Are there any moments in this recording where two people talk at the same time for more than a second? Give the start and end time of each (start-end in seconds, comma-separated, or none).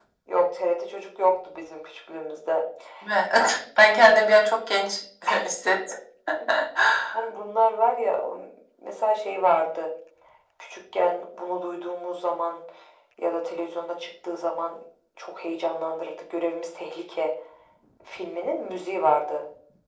none